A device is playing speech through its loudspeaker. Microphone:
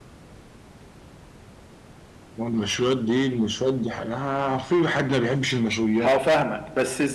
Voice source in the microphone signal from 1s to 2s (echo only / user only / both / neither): neither